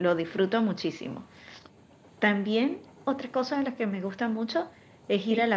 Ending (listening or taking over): listening